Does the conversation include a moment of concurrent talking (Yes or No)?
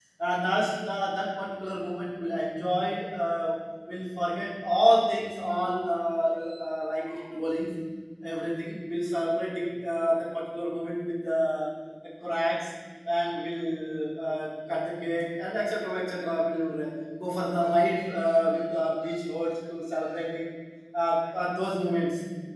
No